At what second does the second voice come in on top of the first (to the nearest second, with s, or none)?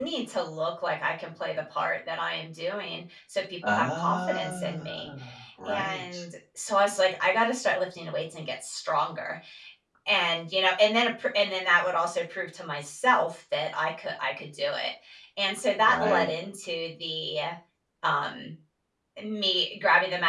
4 s